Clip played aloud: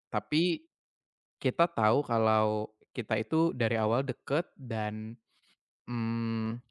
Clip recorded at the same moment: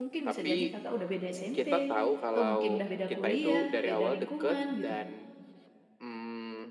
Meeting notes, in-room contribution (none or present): present